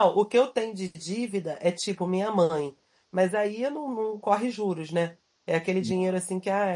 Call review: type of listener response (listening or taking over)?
listening